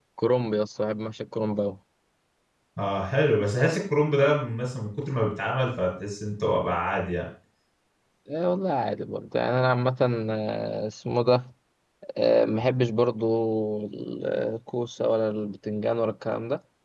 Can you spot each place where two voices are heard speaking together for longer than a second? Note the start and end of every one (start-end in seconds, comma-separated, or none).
none